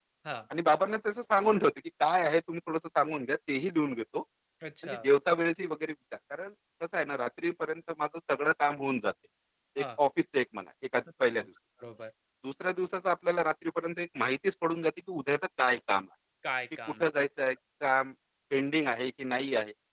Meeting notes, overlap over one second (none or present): none